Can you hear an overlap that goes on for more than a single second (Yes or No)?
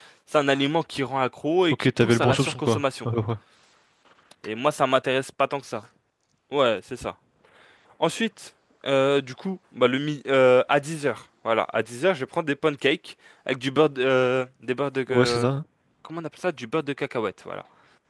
Yes